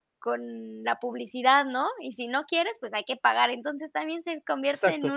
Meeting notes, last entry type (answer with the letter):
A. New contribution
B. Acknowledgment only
A